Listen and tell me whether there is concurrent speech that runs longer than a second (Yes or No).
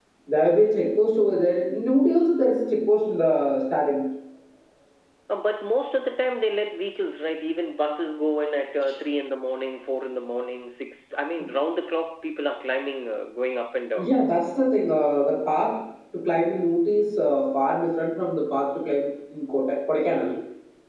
No